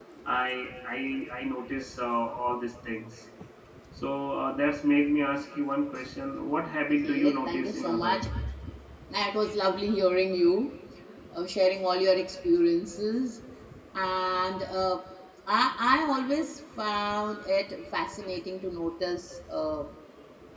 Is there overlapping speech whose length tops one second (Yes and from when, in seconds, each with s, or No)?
Yes, from 7.0 s